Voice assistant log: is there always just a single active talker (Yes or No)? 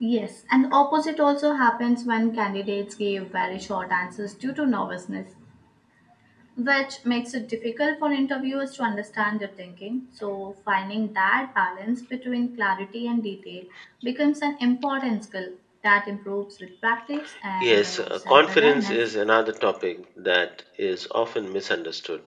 No